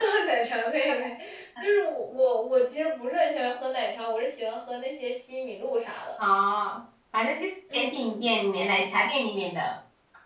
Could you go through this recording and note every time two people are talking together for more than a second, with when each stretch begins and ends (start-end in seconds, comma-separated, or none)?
none